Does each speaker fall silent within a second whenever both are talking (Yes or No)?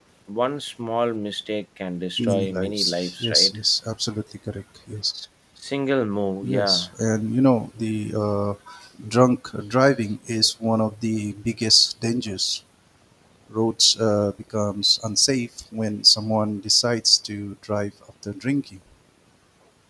No